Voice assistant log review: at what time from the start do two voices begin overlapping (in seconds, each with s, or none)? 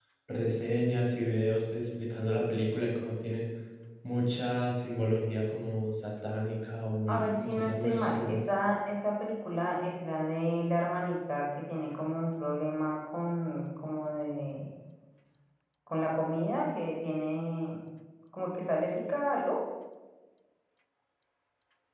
7.1 s